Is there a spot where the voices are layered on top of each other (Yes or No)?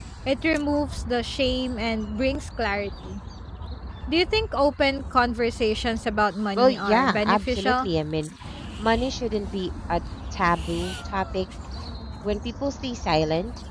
Yes